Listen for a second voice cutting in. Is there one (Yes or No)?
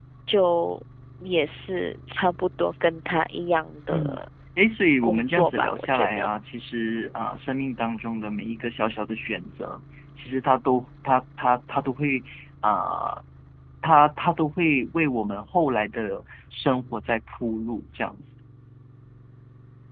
Yes